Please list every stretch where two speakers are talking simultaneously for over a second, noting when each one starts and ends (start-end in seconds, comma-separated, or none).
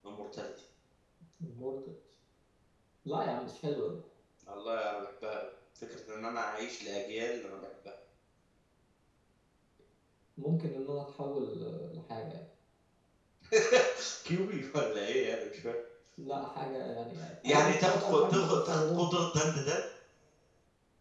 17.4-19.0